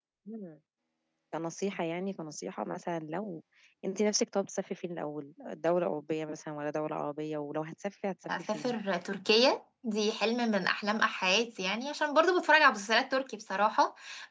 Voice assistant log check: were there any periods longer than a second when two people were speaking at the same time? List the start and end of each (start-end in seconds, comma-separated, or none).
none